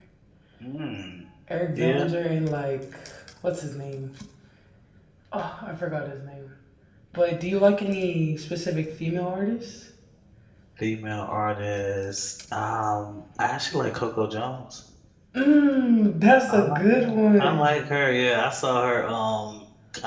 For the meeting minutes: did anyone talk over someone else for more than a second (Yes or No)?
Yes